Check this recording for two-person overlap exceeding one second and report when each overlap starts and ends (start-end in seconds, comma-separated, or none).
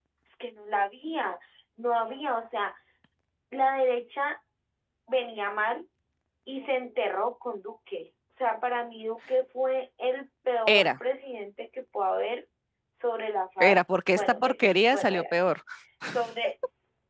13.6-15.5